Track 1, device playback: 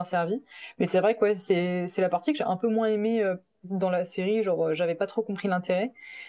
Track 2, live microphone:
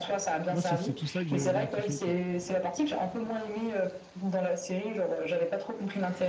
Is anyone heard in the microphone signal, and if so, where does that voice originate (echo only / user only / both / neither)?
both